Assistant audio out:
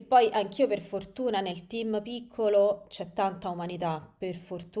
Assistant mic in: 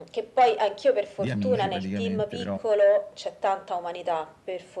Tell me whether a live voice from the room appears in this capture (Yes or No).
Yes